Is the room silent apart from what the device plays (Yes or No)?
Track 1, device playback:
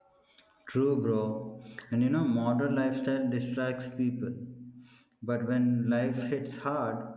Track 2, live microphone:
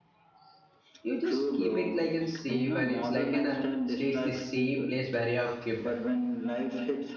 No